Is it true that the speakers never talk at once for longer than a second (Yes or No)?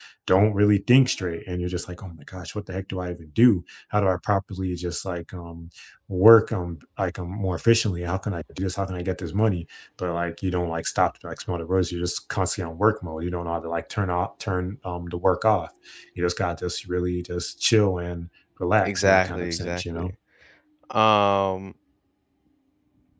No